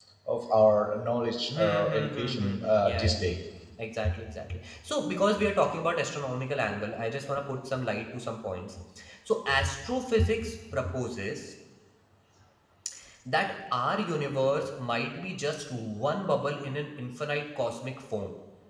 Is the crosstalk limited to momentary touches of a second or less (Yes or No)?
No